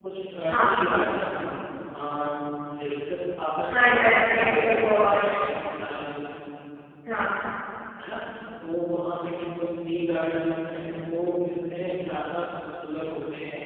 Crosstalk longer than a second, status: present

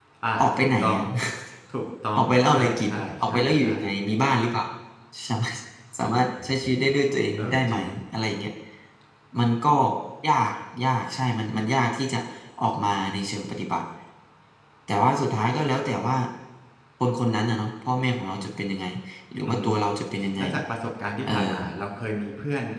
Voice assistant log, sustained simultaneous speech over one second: present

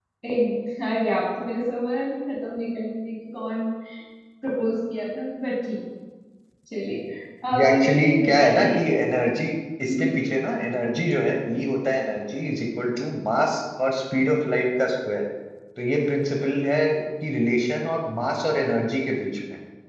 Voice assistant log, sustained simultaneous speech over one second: present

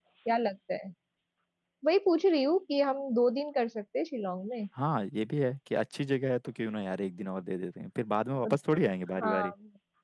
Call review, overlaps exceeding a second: none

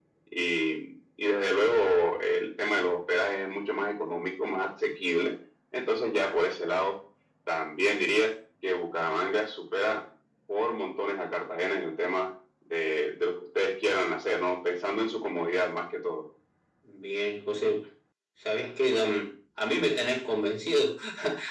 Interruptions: none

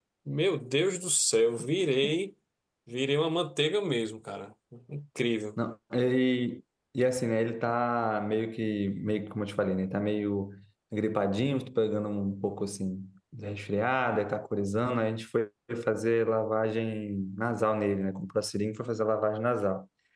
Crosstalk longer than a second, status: none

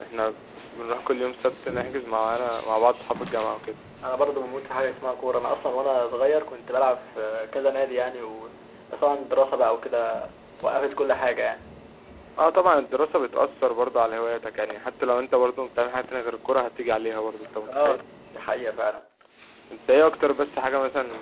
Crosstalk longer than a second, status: none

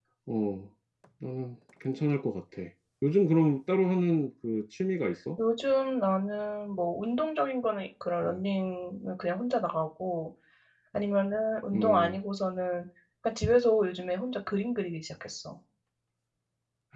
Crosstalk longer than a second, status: none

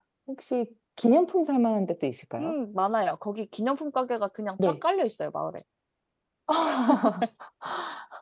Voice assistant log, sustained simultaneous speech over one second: none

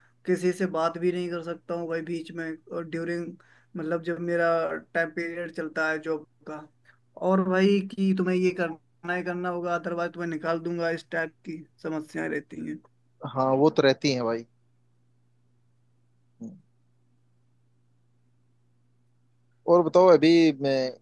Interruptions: none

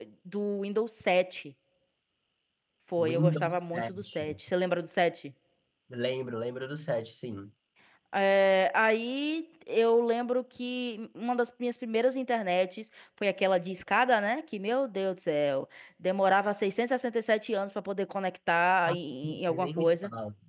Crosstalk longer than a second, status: present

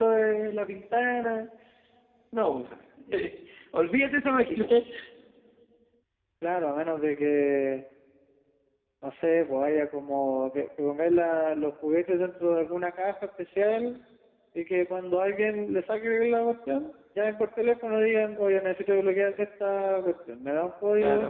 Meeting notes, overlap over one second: none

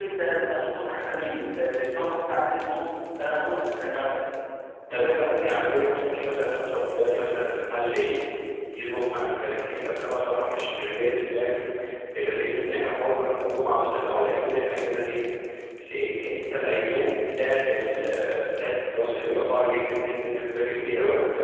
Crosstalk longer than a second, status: none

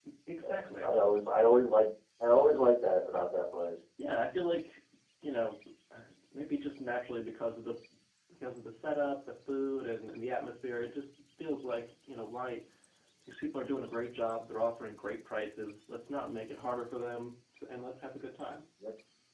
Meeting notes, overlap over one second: none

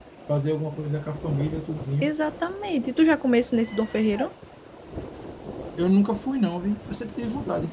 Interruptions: none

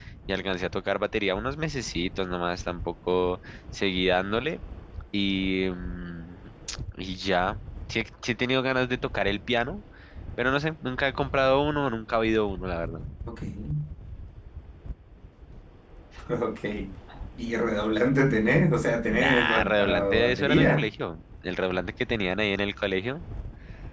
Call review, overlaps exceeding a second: present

